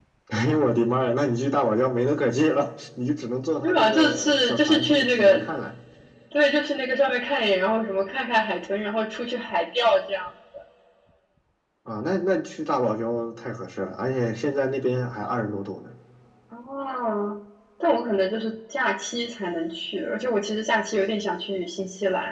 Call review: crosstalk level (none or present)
present